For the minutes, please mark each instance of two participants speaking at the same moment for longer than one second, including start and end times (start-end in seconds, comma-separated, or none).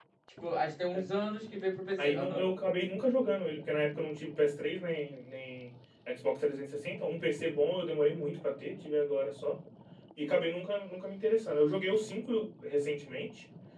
none